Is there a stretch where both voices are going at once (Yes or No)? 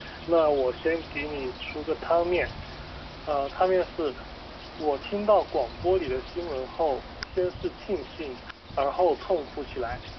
No